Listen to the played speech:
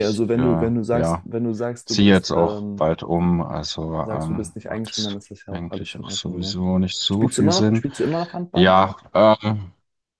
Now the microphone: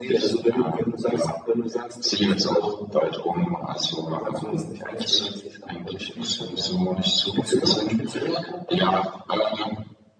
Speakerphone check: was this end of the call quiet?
No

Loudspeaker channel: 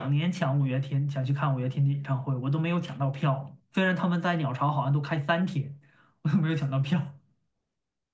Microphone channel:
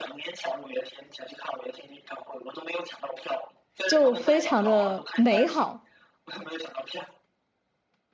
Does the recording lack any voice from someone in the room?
No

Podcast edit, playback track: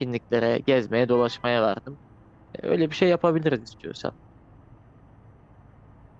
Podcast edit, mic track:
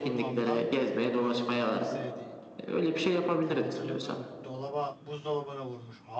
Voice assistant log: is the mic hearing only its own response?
No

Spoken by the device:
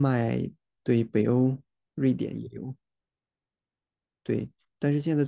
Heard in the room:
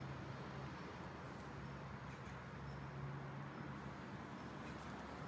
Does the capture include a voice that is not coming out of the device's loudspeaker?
No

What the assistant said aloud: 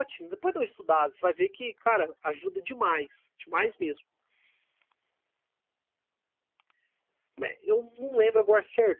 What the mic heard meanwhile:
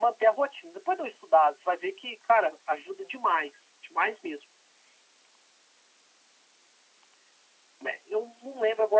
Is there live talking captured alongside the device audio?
No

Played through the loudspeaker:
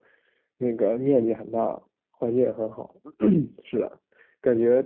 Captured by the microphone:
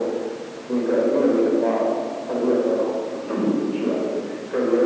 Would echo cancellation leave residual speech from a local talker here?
No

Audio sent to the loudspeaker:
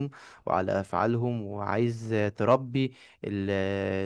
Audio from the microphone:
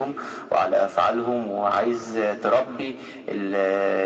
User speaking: No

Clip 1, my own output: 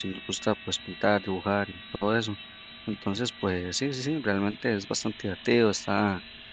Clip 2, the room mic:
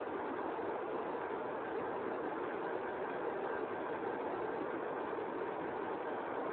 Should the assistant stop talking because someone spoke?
No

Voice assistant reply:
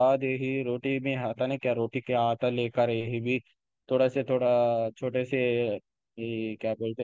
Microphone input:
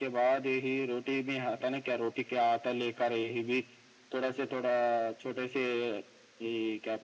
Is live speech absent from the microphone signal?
Yes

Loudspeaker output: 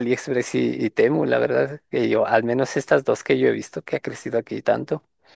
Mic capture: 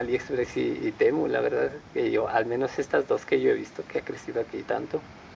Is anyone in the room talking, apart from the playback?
No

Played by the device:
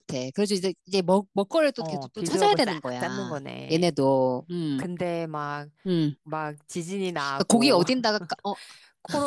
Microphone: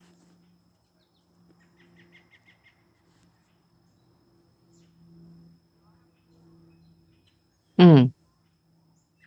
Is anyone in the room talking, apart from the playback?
Yes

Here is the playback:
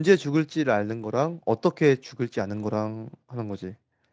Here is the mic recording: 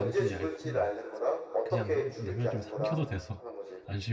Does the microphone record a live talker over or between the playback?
Yes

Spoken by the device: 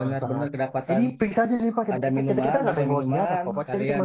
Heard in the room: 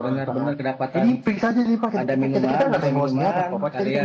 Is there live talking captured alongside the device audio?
No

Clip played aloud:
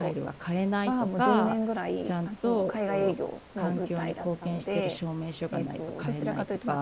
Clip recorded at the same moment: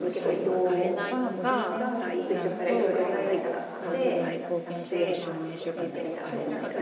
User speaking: Yes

